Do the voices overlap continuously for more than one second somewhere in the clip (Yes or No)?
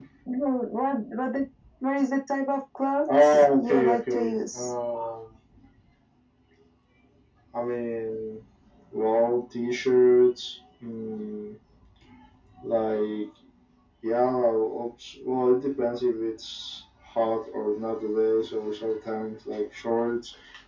Yes